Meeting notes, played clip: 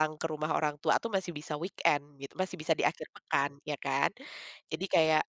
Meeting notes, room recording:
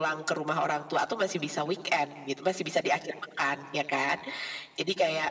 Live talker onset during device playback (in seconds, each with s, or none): none